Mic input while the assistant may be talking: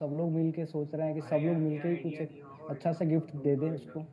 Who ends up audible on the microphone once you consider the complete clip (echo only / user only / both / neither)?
both